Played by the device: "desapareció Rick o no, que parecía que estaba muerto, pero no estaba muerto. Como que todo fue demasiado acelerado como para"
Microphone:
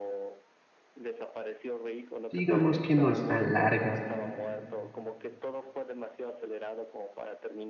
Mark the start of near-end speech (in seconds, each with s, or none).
2.3 s